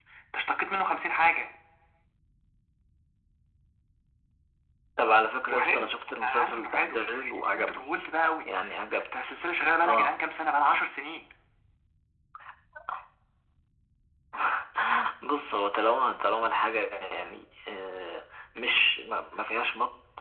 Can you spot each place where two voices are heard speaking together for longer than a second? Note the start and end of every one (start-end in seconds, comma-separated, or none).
5.5-7.8